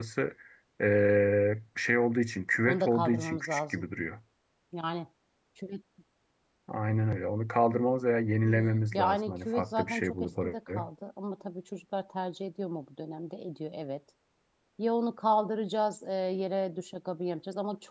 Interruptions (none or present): present